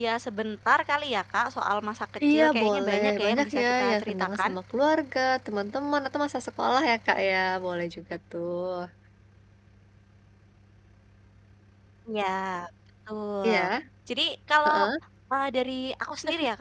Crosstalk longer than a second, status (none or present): present